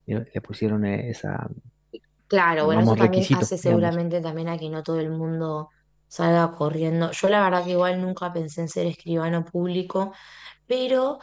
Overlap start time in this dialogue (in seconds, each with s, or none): 2.6 s